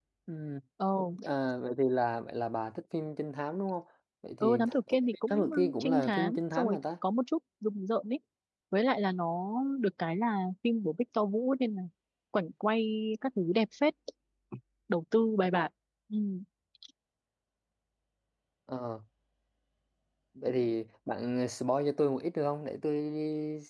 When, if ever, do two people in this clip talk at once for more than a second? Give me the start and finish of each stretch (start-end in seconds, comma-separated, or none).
4.4-6.8